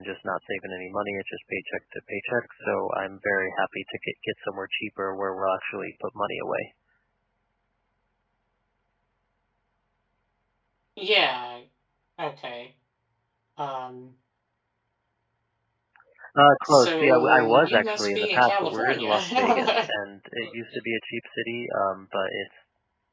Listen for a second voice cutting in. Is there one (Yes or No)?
Yes